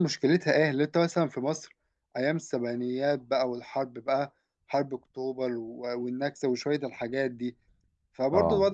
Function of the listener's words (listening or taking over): listening